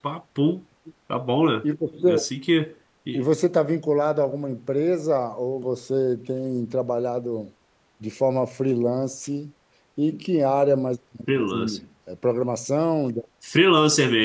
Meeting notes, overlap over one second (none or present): none